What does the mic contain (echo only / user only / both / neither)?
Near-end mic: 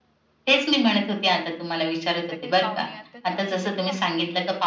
both